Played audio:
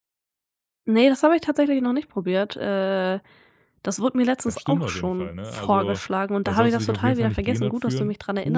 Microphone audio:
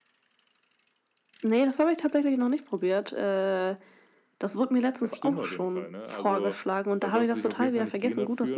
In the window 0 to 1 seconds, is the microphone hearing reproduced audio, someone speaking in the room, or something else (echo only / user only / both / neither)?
neither